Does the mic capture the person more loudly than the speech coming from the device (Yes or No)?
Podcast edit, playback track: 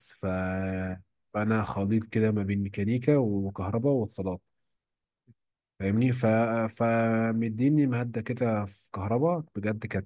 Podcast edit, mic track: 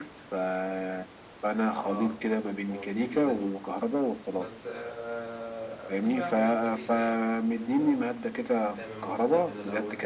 No